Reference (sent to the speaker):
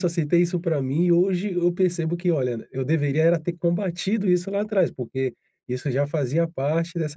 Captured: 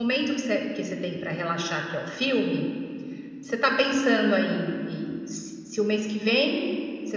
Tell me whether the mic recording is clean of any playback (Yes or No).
Yes